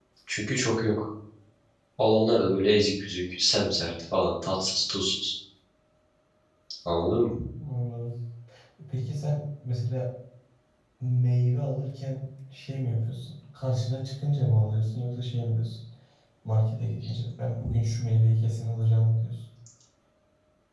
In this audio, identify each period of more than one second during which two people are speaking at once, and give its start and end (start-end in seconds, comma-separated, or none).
none